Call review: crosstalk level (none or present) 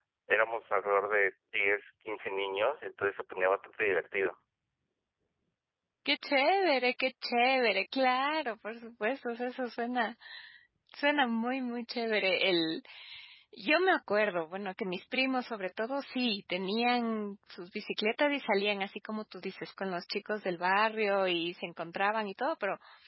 none